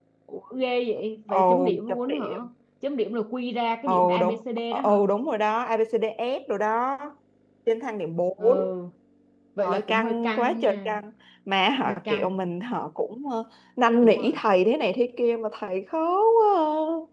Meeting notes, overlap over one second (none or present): present